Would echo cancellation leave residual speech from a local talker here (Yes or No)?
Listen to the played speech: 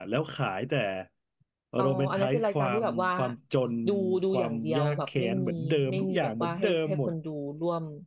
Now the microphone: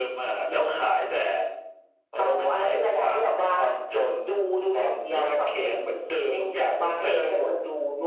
No